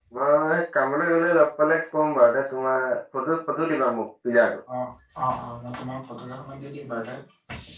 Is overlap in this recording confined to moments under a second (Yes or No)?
Yes